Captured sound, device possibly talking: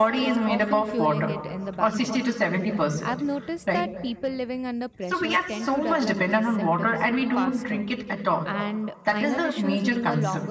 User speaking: Yes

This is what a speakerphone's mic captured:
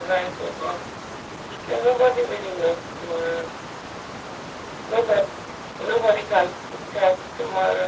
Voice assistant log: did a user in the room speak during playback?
No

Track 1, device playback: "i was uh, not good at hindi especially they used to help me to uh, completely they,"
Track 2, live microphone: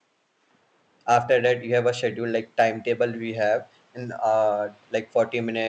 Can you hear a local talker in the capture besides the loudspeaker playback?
Yes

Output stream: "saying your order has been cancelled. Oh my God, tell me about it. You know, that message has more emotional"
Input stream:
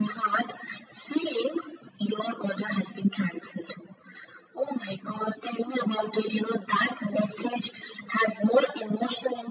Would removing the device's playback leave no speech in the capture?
Yes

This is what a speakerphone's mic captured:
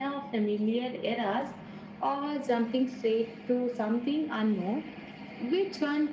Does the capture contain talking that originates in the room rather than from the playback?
No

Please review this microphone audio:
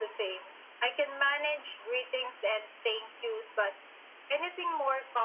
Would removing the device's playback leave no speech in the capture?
Yes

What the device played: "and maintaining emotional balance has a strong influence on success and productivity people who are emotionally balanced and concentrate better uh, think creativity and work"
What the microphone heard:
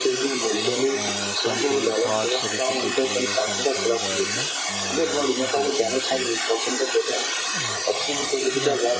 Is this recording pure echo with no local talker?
No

